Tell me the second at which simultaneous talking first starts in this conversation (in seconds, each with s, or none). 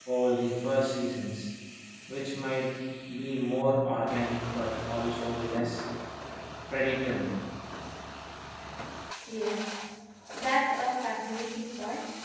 none